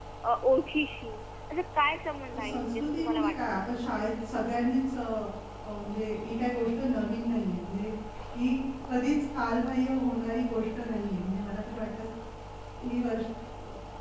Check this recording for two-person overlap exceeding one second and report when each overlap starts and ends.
2.4-3.7

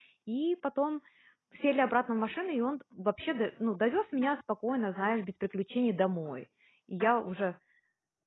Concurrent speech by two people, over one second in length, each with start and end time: none

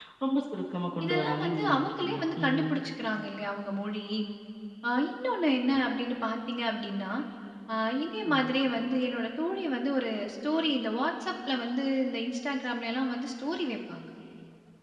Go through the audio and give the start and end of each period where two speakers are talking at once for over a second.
1.0-2.6

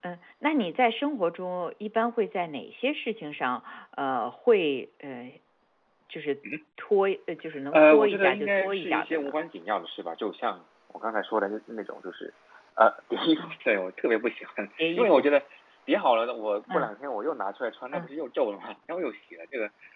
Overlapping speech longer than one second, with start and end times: 7.7-9.3

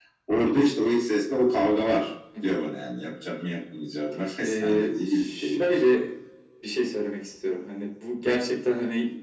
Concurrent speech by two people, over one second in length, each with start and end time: 4.4-6.0

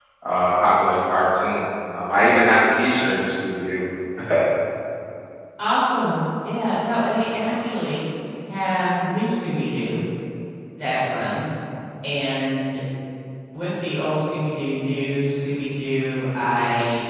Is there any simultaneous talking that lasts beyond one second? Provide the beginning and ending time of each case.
none

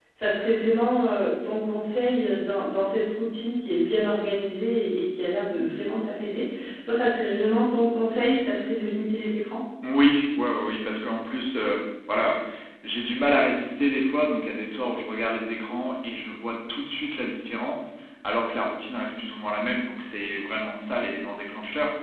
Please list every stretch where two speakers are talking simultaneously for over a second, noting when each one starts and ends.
none

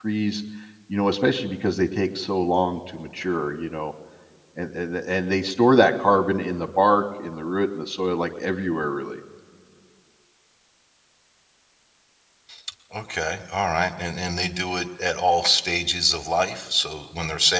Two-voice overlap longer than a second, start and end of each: none

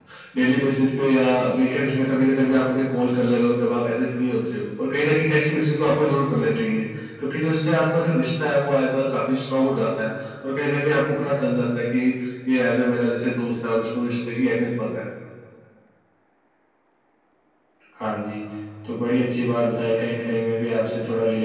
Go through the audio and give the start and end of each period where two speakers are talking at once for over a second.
none

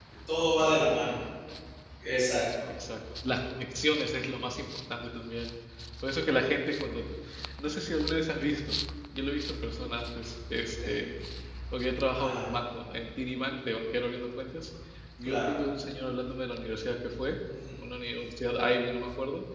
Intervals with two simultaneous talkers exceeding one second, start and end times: none

